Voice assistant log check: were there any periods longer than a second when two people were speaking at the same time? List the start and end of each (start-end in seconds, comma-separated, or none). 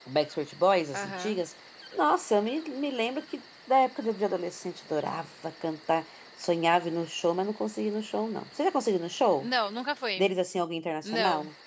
none